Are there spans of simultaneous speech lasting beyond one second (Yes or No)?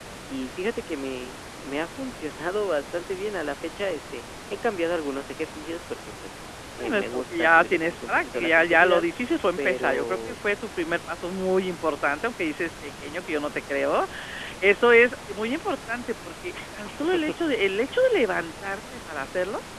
Yes